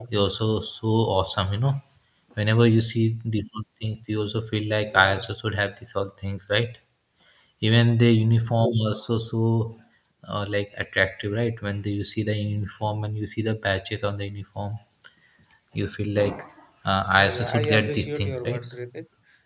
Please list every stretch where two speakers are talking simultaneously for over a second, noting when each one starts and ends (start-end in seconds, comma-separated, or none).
17.1-18.6